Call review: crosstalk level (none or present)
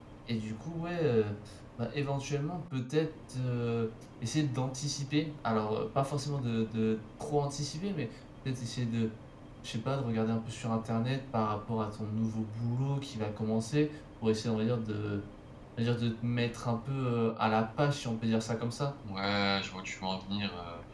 none